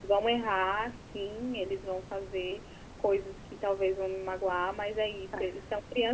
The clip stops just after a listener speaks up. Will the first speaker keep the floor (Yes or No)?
Yes